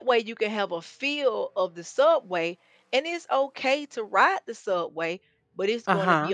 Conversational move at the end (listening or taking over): listening